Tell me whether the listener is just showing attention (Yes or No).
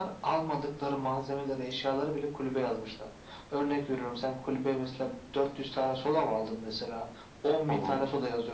Yes